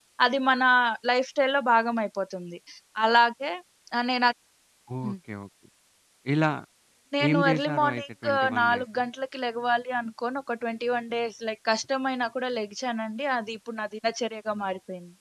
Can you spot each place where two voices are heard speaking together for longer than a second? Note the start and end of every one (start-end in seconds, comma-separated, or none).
7.3-8.8